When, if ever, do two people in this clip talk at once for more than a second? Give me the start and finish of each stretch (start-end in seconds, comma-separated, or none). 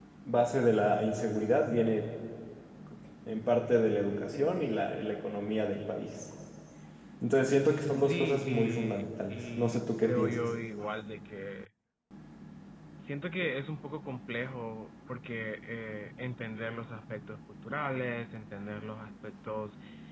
8.0-10.4